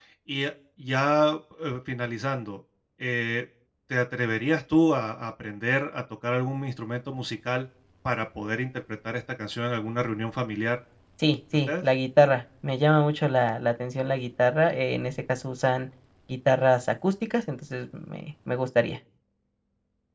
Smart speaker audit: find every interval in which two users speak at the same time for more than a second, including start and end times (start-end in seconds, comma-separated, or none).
none